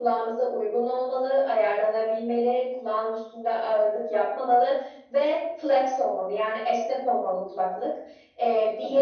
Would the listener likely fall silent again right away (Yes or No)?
Yes